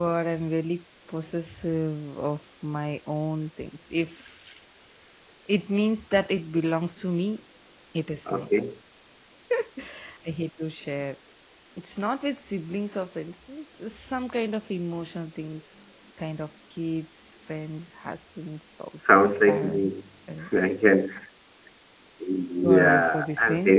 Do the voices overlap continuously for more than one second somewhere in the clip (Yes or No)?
Yes